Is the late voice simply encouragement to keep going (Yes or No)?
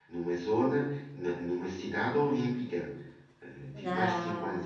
Yes